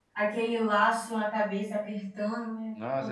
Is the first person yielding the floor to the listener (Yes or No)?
Yes